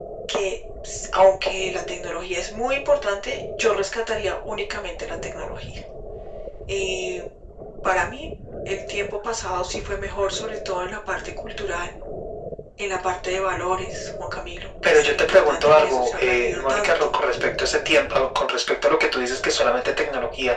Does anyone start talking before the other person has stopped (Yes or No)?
Yes